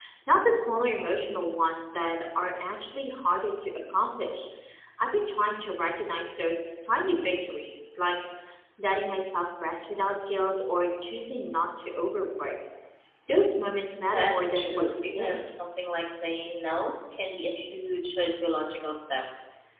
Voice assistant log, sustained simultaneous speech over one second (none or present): present